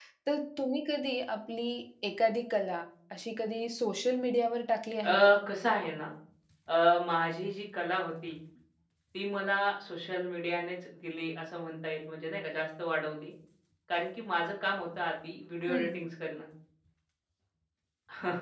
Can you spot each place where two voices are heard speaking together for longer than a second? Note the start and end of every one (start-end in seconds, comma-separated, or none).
none